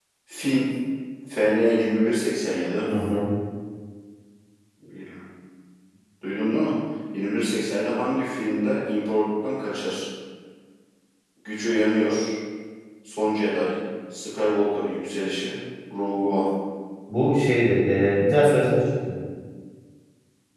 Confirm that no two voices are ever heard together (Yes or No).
Yes